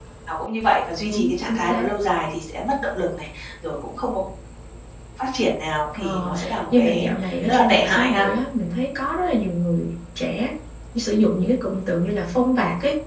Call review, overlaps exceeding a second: present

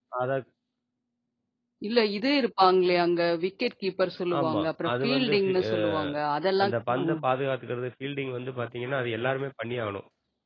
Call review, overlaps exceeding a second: present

